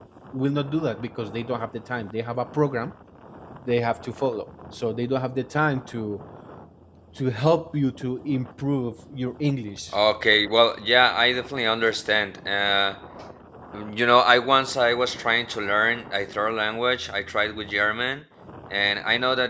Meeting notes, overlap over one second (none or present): none